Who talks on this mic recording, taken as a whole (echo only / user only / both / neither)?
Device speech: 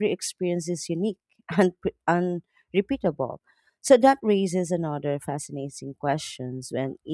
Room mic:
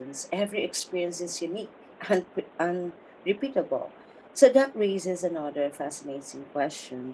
echo only